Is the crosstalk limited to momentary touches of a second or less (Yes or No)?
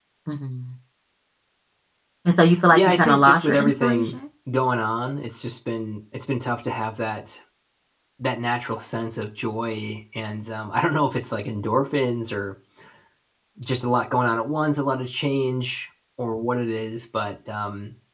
No